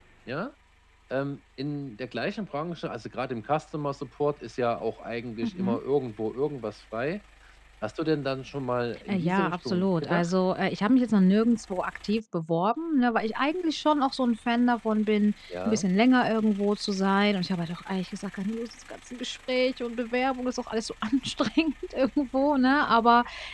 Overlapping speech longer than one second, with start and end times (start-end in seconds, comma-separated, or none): 9.1-10.3